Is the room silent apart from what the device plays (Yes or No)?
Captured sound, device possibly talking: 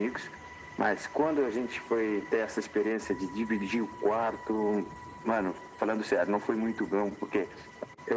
Yes